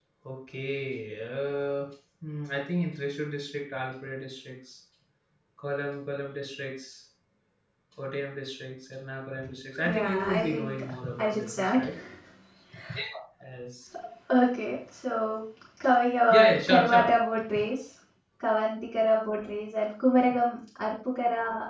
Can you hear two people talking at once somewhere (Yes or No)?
Yes